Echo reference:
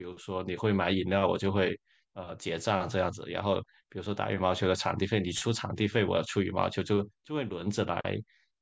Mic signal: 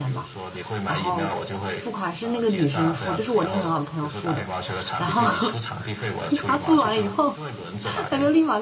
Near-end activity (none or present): present